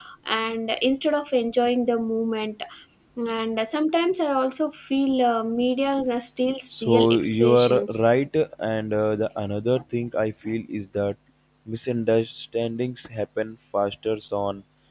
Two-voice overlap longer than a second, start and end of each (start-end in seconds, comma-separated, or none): 6.7-8.0